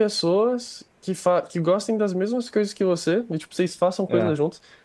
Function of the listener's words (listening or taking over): listening